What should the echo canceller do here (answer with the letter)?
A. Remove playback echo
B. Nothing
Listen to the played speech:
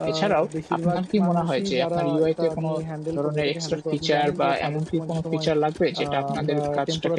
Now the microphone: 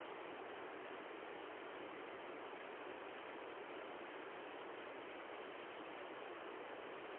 B